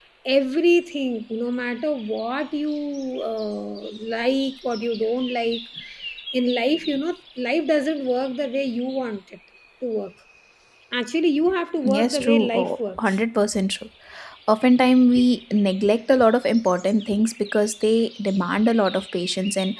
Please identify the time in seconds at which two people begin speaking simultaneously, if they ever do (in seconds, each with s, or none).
11.8 s